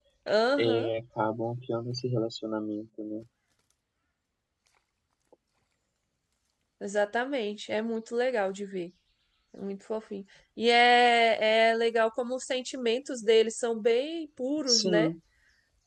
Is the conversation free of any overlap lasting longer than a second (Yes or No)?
Yes